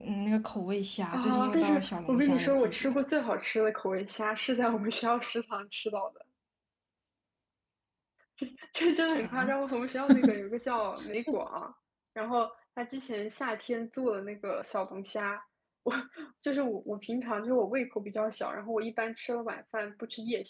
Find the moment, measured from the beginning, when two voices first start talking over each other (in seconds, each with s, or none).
1.1 s